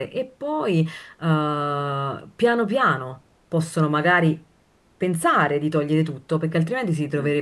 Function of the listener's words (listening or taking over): listening